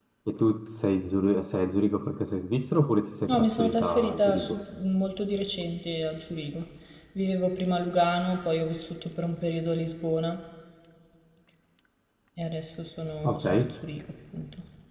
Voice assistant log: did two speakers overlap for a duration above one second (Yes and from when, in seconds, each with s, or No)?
Yes, from 3.3 s